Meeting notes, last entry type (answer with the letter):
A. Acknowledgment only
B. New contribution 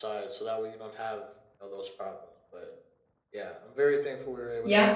B